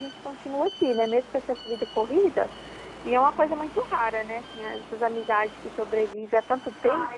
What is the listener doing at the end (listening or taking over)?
taking over